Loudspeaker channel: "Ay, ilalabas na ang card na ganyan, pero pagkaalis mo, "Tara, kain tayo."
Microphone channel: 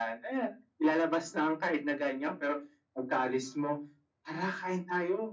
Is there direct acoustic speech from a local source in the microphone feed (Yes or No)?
No